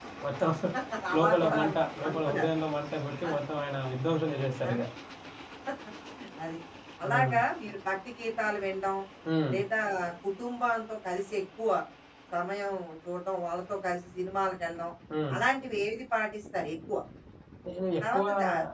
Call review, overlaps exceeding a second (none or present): present